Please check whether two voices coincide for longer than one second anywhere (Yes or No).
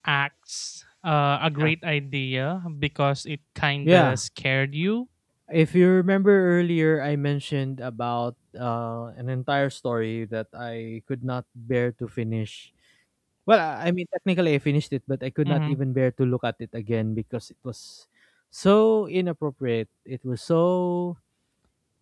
No